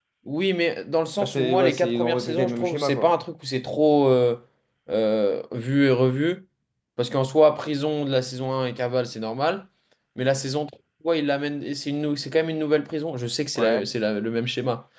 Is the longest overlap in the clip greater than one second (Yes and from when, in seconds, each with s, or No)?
Yes, from 1.2 s